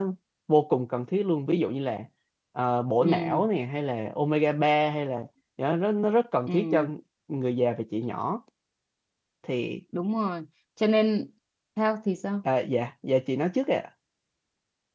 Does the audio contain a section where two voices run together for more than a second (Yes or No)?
No